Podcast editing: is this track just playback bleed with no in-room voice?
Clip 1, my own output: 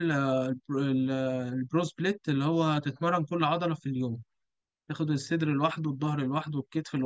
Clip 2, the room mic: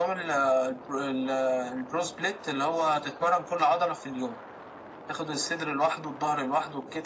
Yes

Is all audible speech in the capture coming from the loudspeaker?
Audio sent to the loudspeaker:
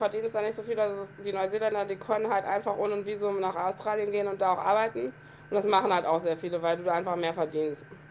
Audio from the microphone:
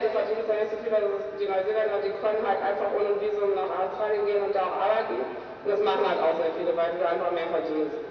Yes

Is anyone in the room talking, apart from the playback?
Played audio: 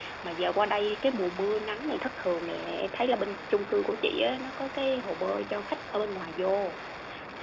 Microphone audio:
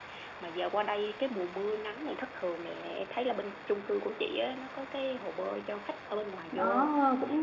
Yes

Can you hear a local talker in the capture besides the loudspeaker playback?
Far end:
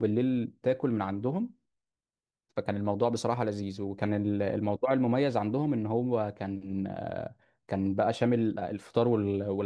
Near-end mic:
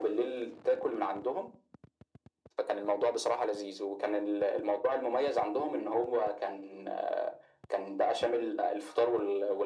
No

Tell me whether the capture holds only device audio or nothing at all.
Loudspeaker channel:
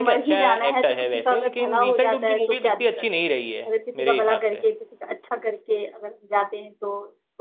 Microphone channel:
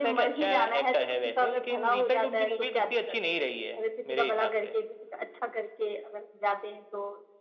Yes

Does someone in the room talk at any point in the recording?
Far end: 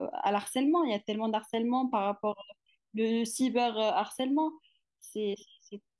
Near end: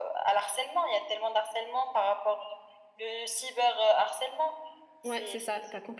Yes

